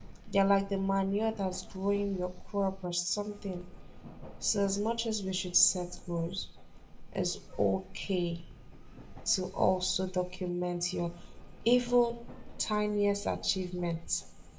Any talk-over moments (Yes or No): No